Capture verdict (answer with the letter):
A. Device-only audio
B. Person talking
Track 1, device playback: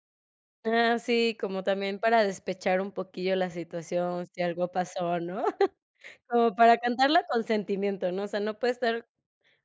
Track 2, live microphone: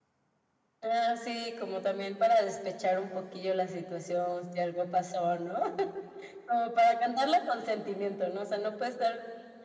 A